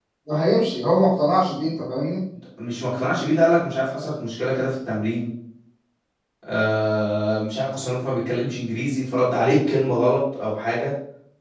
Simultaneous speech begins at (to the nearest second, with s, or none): none